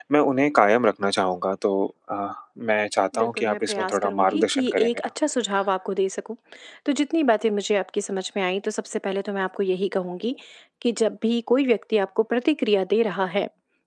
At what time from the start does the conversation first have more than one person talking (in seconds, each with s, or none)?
3.1 s